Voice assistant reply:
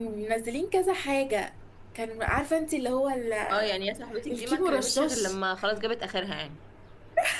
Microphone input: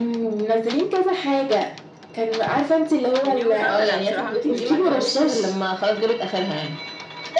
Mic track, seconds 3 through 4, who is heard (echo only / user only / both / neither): both